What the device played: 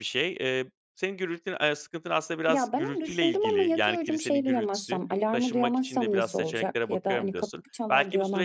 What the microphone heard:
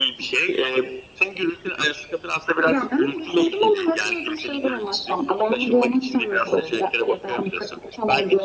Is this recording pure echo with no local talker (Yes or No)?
Yes